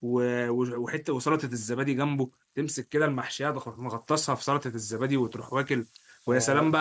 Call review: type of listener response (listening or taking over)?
listening